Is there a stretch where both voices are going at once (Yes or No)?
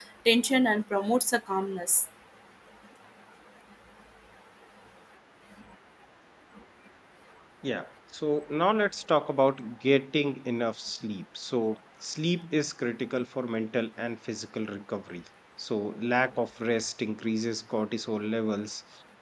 No